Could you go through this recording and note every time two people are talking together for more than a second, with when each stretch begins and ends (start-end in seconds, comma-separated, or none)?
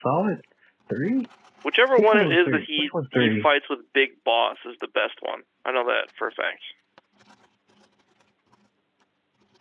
2.0-3.5